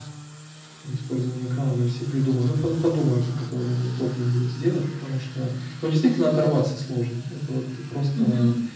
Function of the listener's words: listening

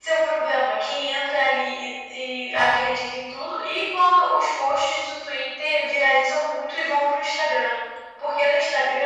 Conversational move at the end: listening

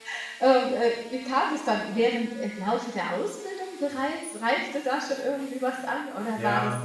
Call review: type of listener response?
listening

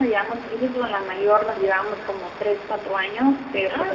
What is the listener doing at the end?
listening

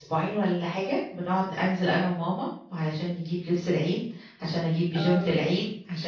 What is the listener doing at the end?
listening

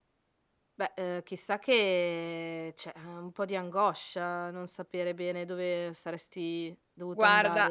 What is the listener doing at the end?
taking over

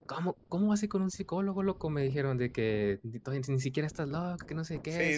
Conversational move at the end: taking over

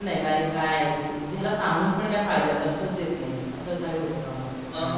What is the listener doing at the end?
taking over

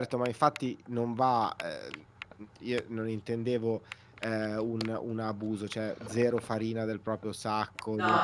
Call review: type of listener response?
taking over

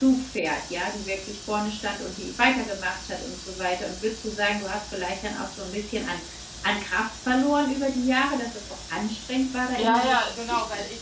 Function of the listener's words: taking over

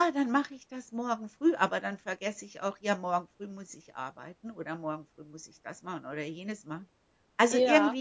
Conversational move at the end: listening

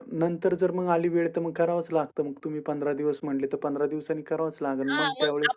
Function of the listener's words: taking over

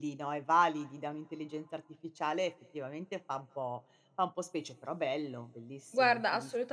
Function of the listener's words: taking over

